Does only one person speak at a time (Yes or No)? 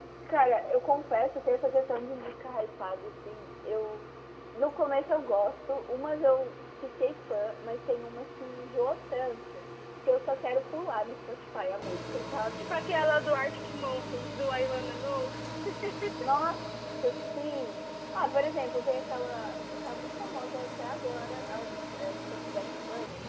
Yes